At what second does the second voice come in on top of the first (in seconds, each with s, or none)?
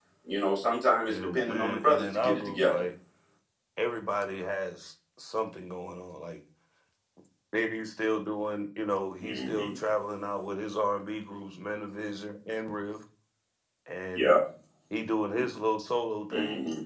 1.1 s